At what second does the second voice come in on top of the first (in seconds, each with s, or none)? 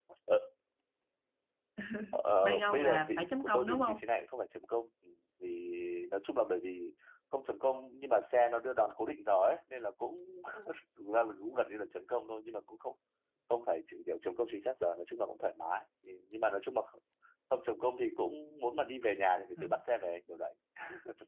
2.7 s